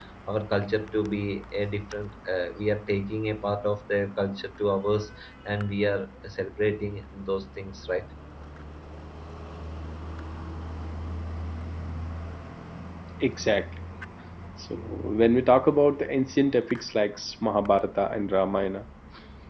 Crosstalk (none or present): none